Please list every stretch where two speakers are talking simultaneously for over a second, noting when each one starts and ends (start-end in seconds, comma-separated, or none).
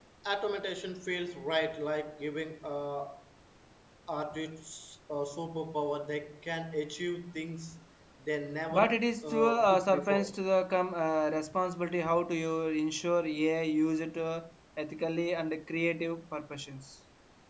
8.7-10.3